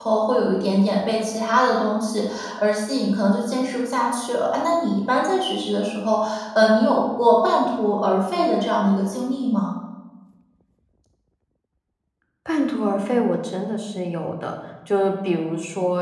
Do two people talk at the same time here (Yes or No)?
No